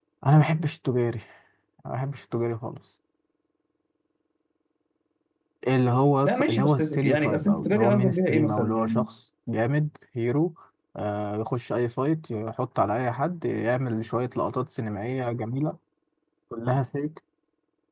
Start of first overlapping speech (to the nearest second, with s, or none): 6 s